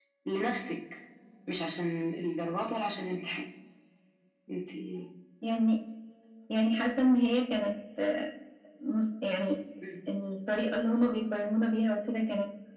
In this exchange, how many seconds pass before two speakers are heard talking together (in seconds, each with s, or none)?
none